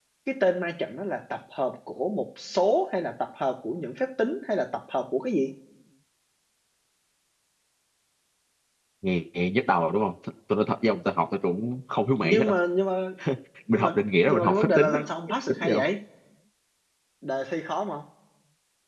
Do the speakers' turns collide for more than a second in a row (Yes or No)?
Yes